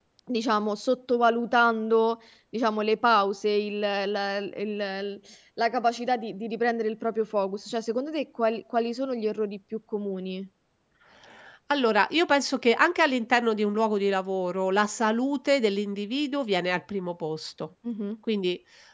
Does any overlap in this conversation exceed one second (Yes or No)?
No